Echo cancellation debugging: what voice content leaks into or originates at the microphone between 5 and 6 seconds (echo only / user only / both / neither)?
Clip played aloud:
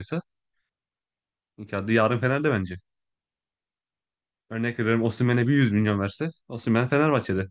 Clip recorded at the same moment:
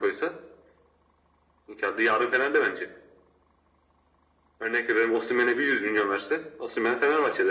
echo only